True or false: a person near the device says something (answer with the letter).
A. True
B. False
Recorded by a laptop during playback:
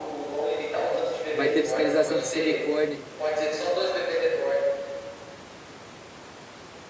A